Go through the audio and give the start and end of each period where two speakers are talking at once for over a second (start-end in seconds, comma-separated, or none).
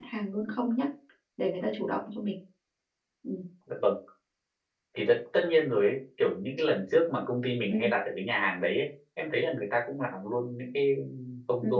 none